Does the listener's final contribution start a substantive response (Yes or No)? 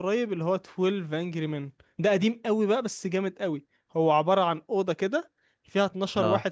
No